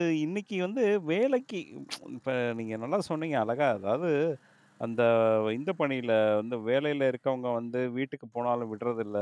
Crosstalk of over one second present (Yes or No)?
No